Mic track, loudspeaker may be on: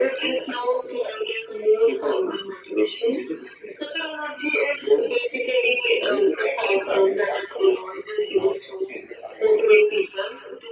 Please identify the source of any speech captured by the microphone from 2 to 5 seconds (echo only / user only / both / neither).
echo only